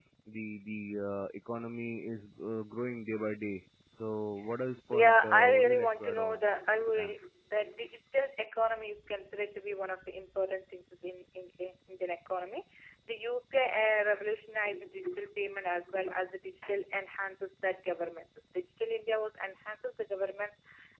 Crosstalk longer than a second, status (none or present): present